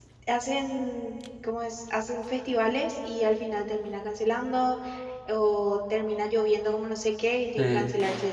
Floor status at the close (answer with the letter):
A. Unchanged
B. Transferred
A